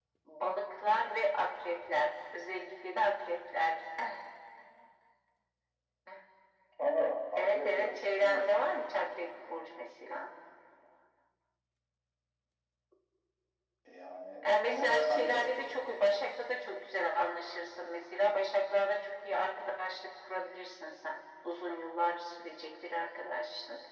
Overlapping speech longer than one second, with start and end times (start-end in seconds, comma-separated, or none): 7.4-8.6, 14.4-15.8